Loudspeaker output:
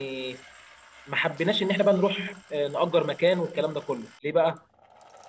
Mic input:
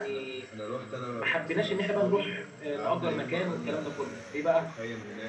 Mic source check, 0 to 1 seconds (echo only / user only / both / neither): both